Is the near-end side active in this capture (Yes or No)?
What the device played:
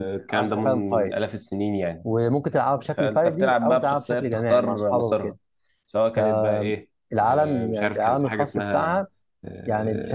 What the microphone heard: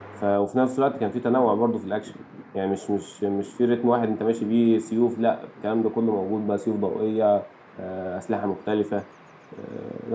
Yes